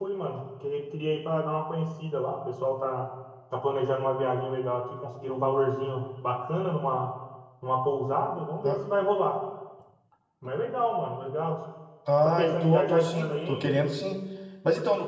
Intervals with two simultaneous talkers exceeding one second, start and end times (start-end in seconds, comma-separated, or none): 12.2-13.8